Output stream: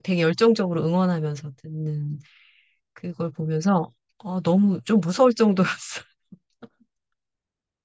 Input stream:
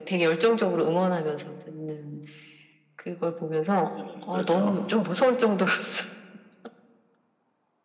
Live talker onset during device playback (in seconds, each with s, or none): 3.9 s